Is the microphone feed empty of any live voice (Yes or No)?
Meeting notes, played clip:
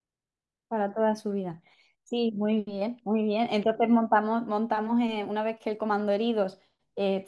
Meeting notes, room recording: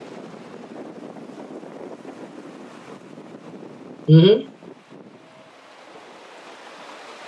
No